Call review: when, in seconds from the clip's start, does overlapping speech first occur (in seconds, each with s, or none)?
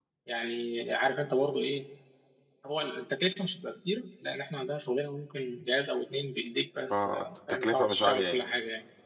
6.9 s